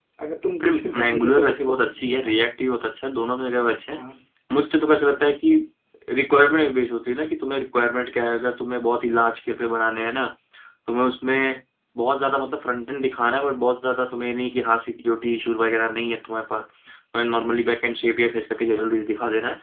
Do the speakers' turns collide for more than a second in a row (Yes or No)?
Yes